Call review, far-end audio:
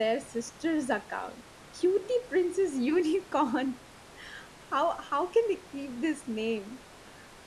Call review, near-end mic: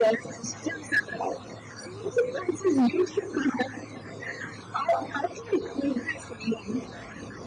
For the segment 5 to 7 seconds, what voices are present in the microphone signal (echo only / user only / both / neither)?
echo only